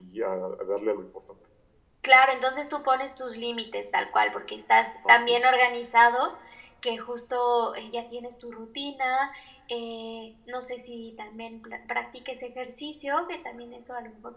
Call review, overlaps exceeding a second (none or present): none